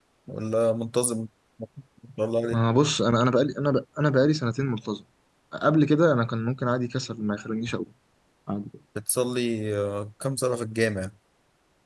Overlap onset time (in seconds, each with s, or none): none